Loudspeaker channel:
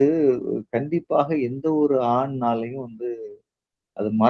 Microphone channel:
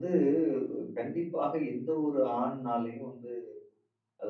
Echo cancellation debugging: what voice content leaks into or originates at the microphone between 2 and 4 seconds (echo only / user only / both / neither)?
echo only